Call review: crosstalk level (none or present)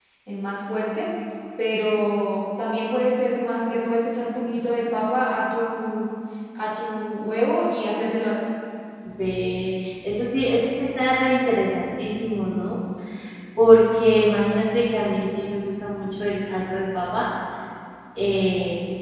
none